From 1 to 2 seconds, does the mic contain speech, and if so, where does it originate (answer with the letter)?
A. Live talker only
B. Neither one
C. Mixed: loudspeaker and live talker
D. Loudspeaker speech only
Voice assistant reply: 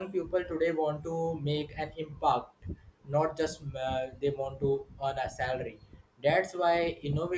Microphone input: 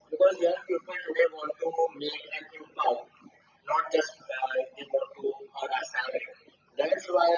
D